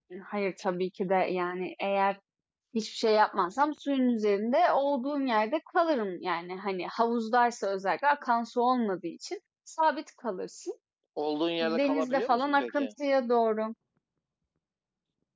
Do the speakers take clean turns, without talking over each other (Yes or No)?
No